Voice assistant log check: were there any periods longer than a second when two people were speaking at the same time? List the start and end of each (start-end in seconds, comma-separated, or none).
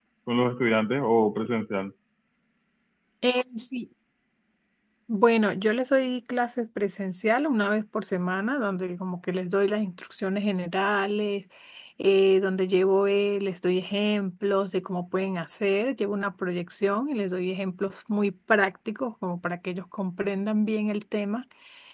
none